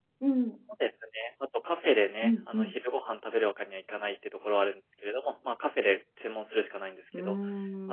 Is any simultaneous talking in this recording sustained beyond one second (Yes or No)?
No